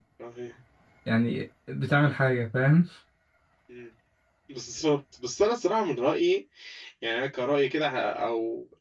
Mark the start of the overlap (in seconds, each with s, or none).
none